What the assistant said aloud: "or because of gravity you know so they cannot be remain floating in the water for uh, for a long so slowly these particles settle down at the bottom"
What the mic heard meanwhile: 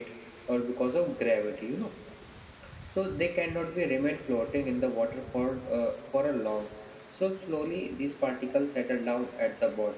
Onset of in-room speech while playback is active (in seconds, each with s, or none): none